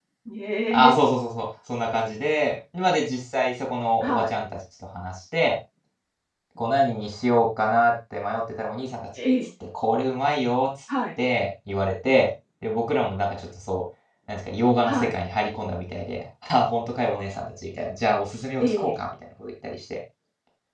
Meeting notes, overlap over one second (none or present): none